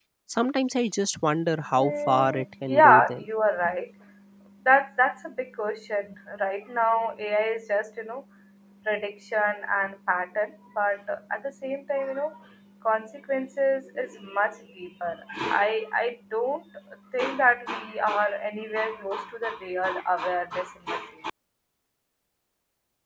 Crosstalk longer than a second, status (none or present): present